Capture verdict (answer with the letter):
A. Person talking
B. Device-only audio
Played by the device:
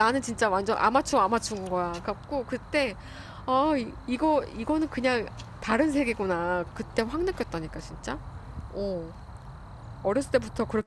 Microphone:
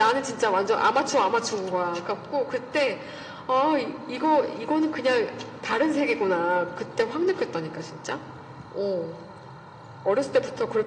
B